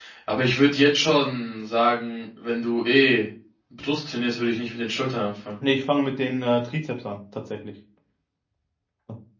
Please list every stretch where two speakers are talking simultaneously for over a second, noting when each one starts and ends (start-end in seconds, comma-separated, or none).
none